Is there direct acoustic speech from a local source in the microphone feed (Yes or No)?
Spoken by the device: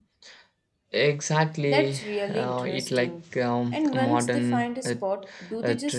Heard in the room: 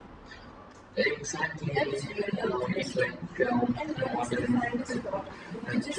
No